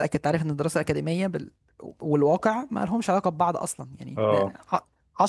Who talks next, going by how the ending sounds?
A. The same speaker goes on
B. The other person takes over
A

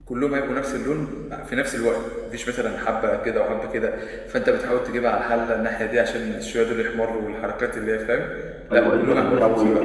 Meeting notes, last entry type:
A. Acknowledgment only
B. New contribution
B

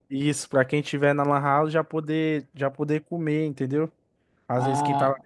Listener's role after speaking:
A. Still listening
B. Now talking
B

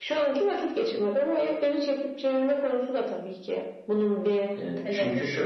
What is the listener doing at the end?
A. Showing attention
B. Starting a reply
B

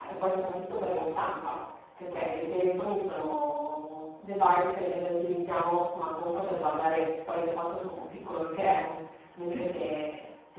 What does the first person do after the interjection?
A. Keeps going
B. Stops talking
A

